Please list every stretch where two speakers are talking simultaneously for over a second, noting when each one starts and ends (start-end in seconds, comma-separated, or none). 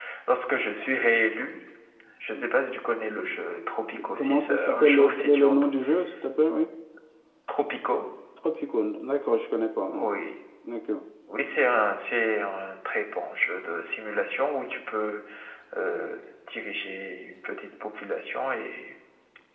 4.1-5.7